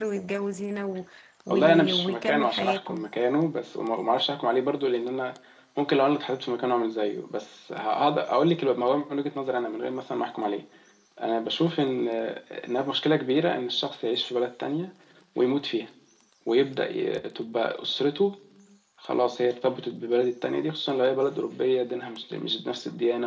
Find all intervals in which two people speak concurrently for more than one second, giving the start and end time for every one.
1.5-3.0

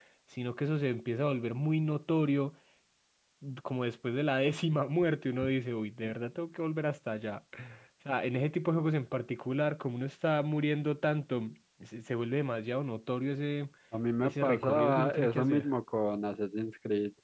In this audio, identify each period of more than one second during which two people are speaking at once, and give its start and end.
14.2-15.7

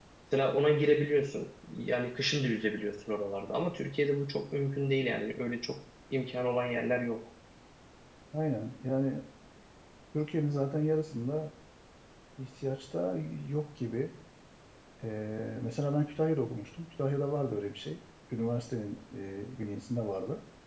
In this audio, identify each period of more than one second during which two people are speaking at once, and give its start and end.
none

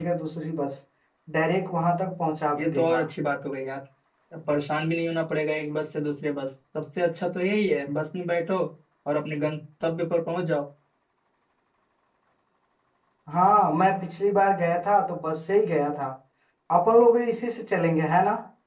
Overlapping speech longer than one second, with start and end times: none

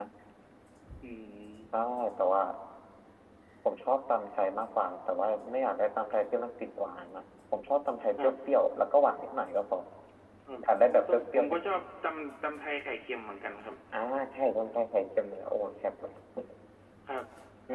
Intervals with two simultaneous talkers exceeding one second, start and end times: 10.6-11.8

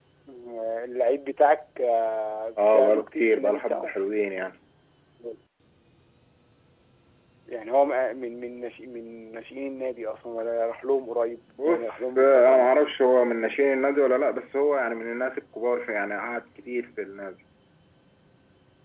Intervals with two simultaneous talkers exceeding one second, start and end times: 2.6-3.9, 11.7-12.9

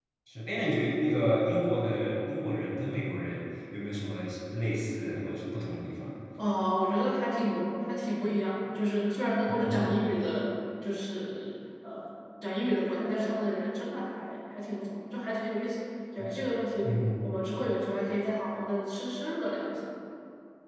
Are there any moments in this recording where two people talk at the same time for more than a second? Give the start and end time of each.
none

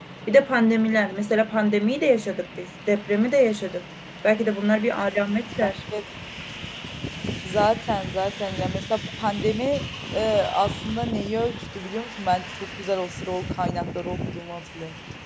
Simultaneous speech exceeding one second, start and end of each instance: none

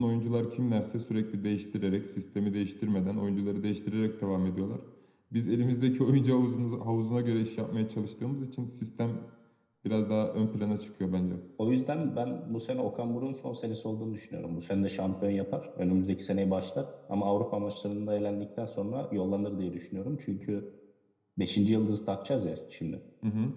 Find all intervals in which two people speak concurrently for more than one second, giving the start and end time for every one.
none

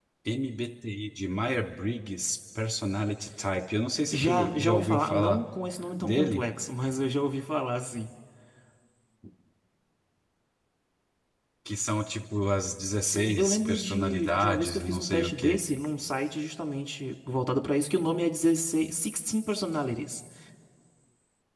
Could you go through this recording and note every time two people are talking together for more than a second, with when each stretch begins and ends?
4.1-5.4, 13.0-15.6

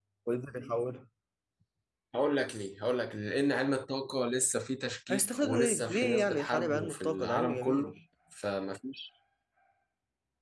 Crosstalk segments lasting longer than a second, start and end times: 5.1-7.9

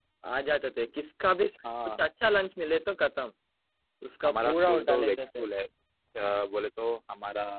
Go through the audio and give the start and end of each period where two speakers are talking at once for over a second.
4.2-5.4

